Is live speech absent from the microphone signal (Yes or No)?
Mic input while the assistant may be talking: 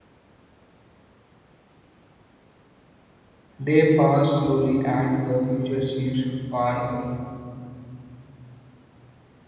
No